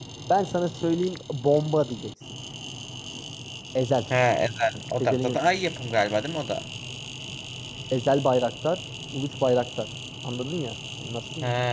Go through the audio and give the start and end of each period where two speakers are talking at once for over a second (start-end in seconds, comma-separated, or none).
none